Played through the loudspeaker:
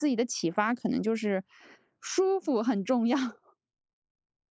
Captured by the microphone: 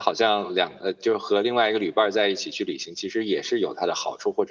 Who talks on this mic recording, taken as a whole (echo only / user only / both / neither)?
user only